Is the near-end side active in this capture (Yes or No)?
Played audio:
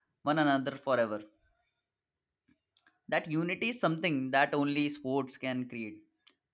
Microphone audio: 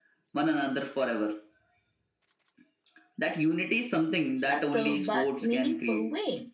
Yes